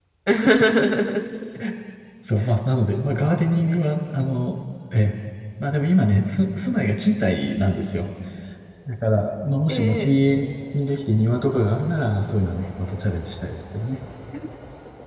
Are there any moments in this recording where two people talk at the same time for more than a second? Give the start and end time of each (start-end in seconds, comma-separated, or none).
none